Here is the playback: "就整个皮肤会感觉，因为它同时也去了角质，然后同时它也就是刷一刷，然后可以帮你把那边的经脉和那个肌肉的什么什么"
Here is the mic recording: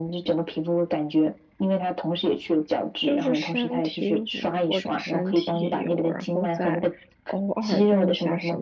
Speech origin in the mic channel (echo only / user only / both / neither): both